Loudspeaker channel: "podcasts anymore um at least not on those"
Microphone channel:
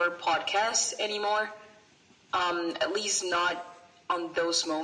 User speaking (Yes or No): No